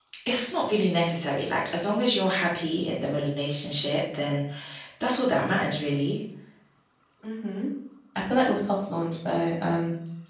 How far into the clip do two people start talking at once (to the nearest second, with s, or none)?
none